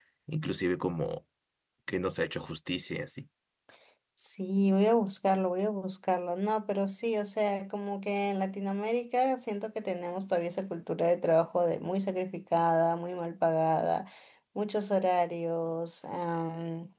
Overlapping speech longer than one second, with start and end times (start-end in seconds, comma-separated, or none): none